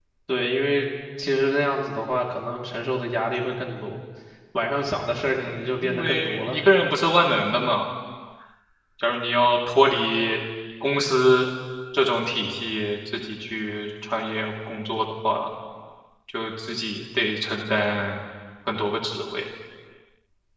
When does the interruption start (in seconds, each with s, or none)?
5.4 s